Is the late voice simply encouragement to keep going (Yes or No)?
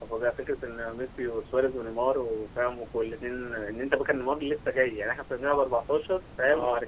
Yes